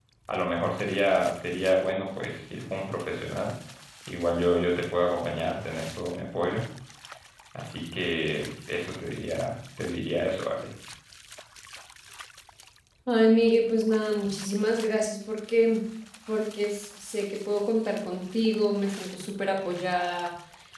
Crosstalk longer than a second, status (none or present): none